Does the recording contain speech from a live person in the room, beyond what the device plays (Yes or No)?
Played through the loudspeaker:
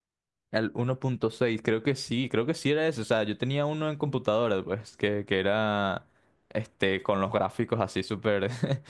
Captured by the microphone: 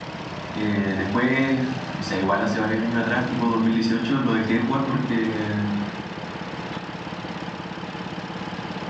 Yes